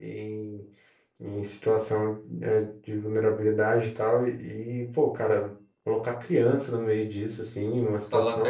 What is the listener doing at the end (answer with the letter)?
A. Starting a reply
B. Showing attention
B